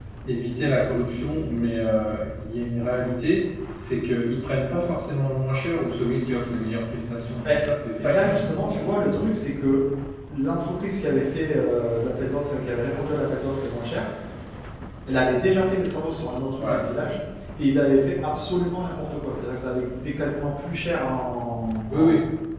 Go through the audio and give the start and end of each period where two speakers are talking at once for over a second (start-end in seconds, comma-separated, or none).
8.0-9.2